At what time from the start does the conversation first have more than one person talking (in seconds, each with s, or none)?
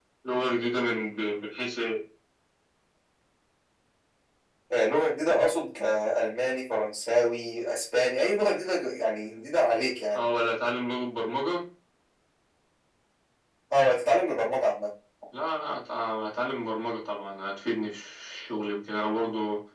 none